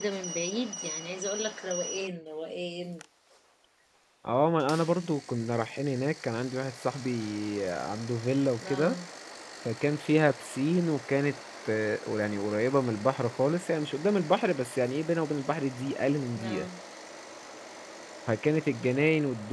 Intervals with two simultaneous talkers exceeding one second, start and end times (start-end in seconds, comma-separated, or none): none